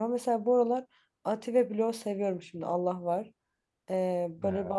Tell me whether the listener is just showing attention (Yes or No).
Yes